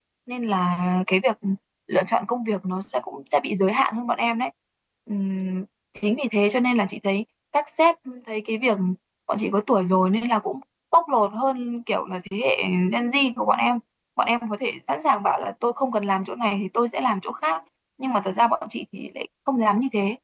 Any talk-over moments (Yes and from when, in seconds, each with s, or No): No